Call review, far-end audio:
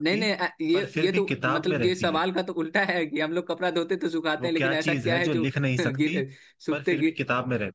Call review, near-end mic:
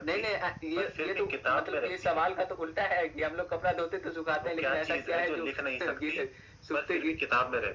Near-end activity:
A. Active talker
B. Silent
B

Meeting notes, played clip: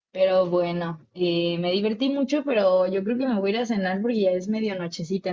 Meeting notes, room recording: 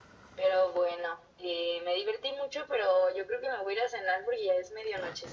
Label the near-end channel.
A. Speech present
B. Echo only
B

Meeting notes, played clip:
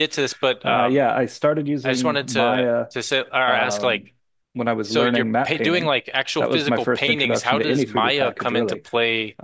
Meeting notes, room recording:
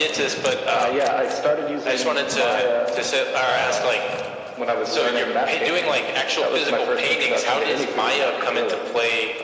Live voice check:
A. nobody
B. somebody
A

